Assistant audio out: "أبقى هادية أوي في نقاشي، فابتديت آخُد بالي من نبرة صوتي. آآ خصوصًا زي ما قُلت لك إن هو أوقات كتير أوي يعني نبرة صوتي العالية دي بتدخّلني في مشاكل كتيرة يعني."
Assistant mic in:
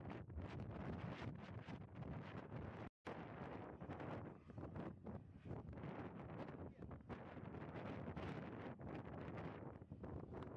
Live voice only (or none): none